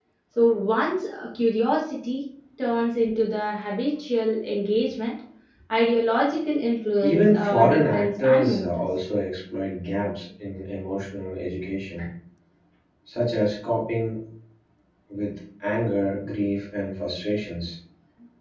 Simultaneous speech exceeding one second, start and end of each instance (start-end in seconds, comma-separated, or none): 7.0-8.8